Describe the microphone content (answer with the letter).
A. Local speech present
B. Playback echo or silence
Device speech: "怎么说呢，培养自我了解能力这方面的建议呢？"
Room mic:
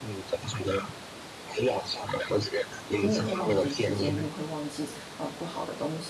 A